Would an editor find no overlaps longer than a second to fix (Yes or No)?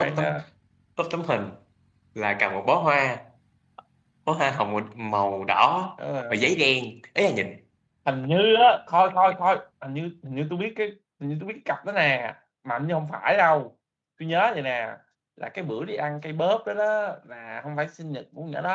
Yes